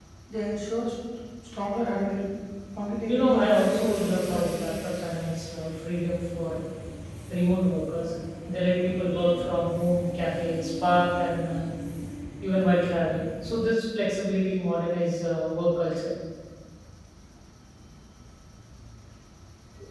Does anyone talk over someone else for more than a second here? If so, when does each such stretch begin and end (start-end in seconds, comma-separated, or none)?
3.1-4.7